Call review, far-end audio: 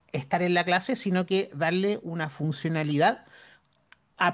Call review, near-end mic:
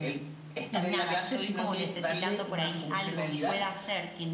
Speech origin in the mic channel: both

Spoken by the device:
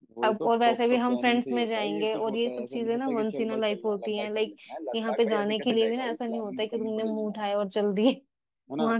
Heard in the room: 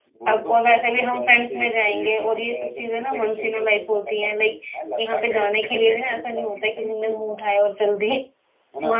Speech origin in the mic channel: echo only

